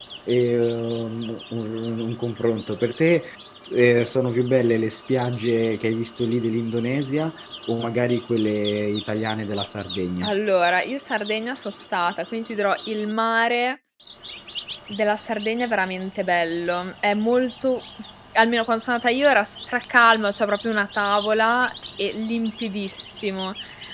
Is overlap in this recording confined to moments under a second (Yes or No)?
Yes